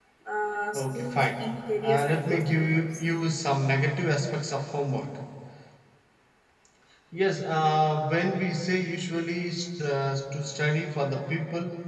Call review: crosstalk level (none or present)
present